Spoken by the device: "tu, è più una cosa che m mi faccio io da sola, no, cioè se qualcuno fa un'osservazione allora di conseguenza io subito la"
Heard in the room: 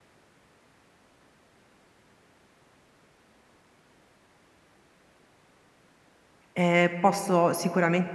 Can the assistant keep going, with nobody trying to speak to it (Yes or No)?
No